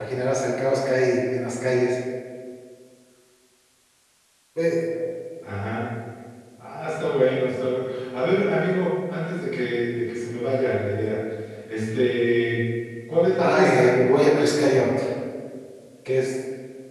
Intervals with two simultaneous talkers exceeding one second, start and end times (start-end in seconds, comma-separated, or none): 13.4-14.9